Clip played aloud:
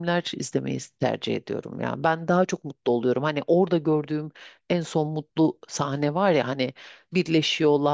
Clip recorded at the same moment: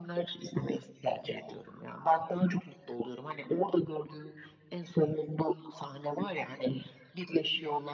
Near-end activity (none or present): none